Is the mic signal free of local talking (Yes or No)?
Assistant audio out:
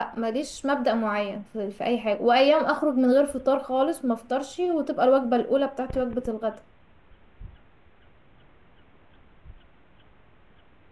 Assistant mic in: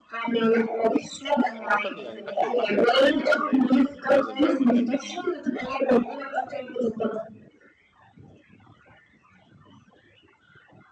No